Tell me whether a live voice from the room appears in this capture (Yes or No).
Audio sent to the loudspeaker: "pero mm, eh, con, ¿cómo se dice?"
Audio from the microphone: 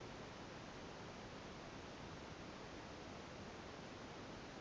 No